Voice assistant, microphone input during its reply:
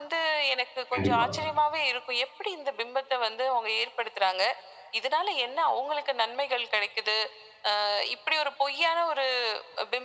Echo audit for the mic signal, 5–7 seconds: echo only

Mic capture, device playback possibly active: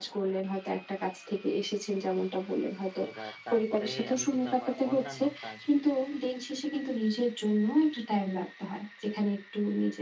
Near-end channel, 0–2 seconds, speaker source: echo only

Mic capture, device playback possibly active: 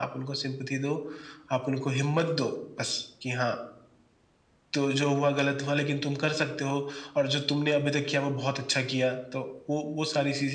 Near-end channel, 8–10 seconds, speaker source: echo only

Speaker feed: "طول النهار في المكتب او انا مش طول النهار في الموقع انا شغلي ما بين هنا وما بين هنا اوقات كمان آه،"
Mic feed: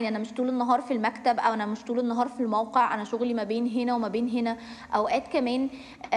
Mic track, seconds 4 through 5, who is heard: echo only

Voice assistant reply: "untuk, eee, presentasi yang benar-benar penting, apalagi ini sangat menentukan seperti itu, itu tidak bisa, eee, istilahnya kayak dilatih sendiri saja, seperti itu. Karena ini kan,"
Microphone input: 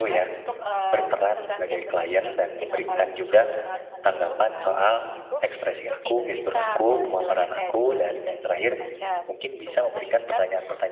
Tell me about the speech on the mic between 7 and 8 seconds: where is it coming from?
both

